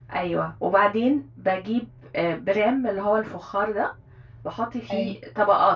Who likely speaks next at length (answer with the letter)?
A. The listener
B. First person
B